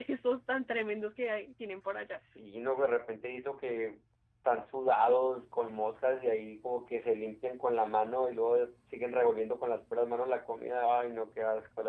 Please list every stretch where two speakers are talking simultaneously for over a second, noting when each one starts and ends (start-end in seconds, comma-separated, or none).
none